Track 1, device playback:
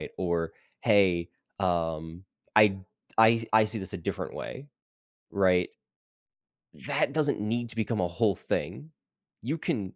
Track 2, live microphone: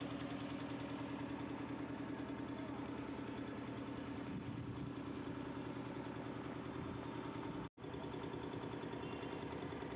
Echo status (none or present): none